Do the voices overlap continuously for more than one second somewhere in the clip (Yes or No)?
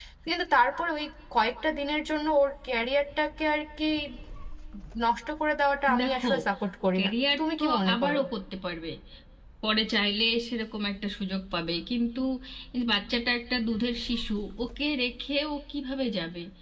Yes